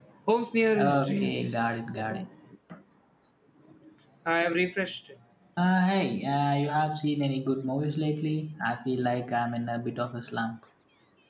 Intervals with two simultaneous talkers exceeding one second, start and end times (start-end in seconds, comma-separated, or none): 0.8-2.3